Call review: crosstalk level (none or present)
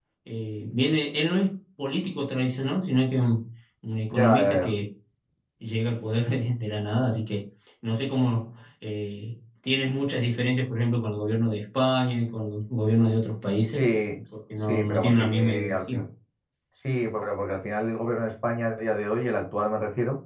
present